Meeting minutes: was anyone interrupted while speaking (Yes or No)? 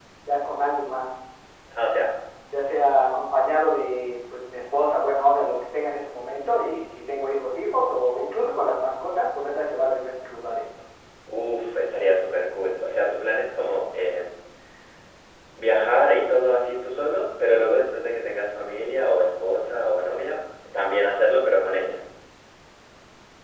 No